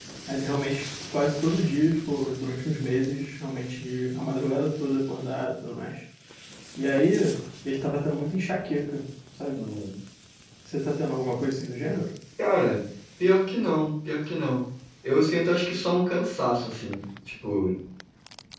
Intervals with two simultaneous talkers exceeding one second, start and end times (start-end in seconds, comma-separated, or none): none